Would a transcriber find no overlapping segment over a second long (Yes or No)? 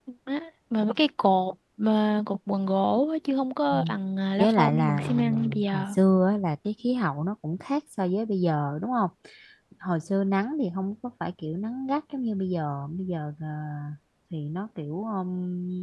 No